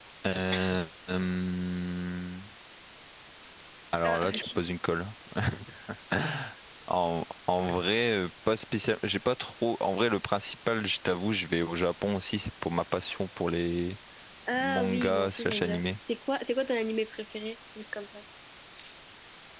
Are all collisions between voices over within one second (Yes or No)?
No